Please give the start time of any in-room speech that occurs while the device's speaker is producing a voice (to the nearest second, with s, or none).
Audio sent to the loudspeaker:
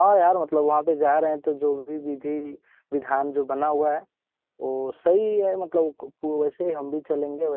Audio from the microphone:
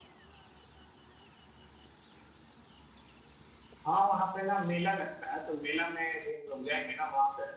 4 s